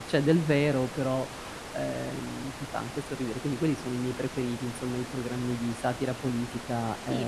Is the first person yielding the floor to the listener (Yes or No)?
Yes